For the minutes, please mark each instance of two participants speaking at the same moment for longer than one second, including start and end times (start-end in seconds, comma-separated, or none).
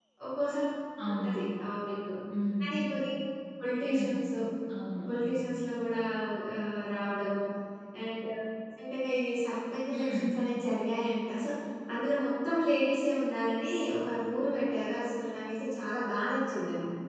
none